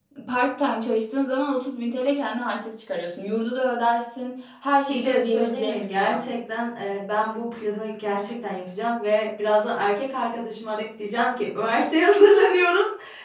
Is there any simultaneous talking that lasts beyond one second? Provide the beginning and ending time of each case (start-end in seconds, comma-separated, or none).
4.9-6.2